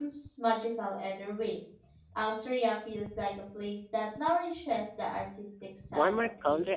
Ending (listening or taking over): taking over